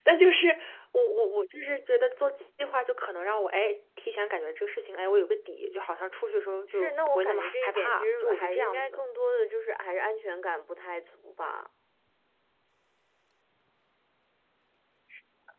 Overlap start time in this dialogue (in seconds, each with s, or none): 6.7 s